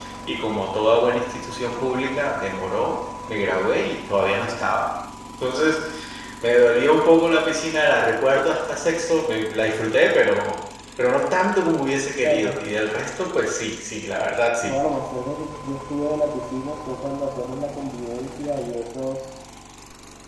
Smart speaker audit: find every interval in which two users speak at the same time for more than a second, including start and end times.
none

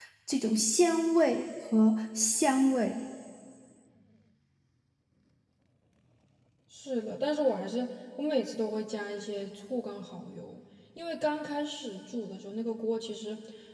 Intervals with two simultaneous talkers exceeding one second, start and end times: none

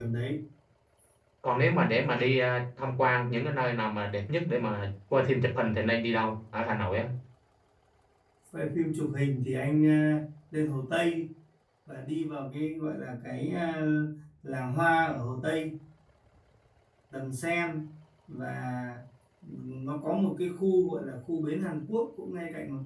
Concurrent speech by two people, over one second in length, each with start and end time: none

